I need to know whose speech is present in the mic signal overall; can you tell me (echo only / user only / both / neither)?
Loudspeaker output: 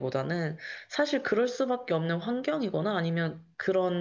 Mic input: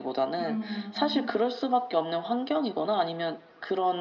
both